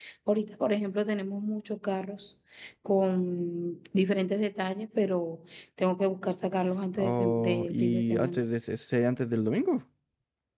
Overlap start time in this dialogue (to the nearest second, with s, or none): 7 s